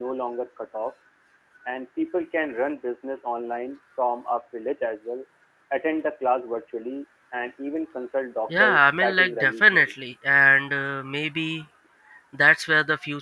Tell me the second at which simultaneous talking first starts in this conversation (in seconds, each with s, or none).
8.5 s